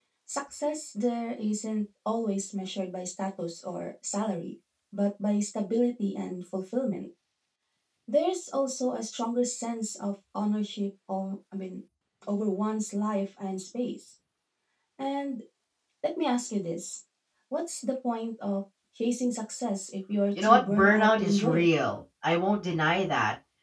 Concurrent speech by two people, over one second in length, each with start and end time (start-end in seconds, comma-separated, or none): 20.4-21.6